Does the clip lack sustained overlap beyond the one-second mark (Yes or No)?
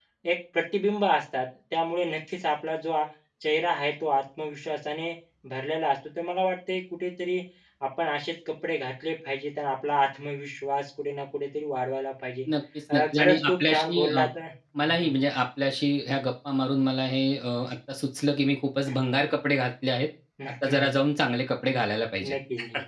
No